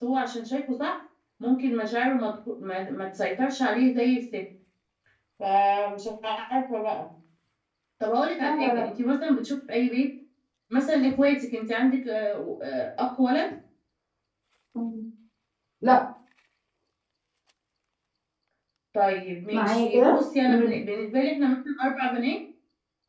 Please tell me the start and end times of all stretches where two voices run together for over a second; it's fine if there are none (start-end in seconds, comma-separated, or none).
19.5-20.7